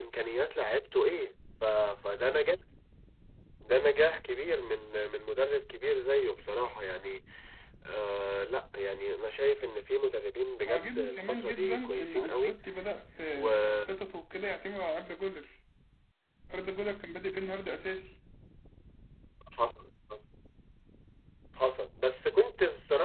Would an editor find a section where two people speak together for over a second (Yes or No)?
Yes